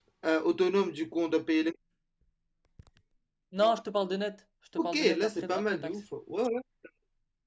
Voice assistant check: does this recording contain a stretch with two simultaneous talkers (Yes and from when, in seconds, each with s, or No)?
Yes, from 4.8 s